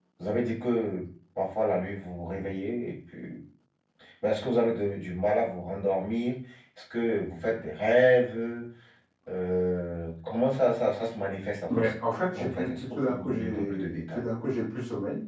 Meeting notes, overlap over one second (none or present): present